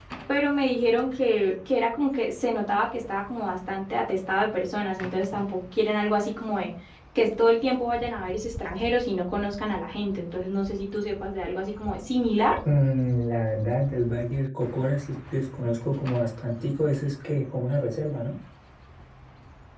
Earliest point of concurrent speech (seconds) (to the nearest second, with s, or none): none